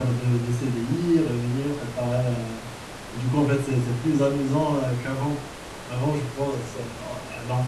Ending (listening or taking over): listening